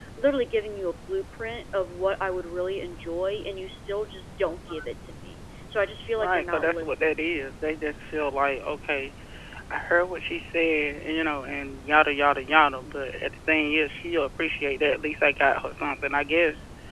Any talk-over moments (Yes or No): Yes